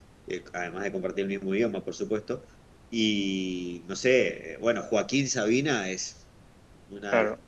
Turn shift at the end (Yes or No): No